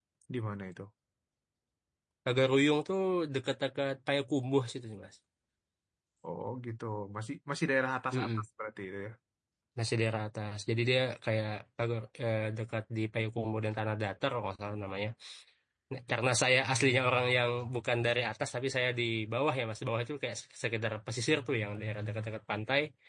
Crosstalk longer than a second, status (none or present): none